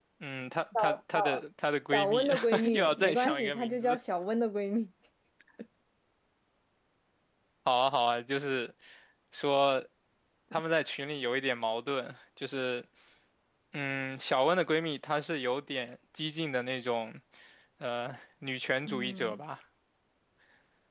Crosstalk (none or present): present